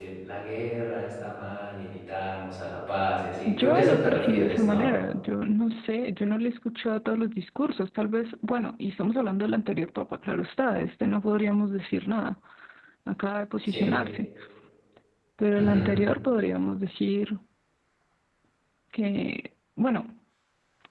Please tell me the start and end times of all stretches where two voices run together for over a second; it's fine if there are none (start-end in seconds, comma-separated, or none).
3.5-4.9